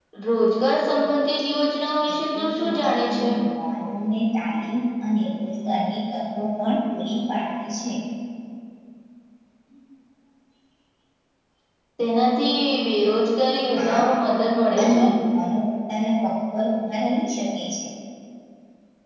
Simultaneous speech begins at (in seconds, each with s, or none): 2.1 s